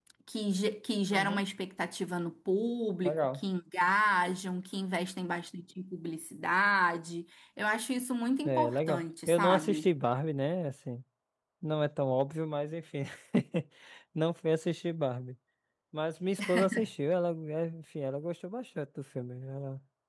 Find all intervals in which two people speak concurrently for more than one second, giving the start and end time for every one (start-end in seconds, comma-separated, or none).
8.4-9.9